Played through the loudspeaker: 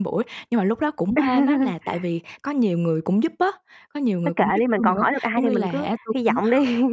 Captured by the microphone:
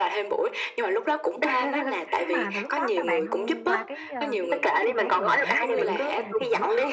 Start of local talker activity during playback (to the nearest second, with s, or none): 2 s